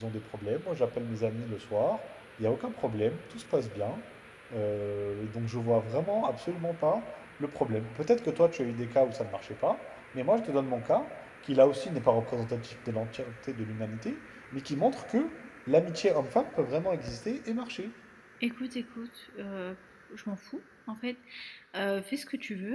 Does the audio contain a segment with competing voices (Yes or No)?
No